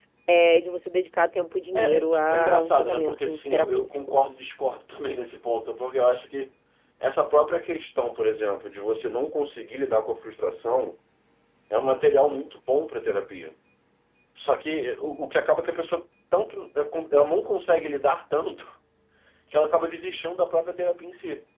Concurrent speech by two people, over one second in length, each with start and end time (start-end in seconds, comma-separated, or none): 1.8-4.0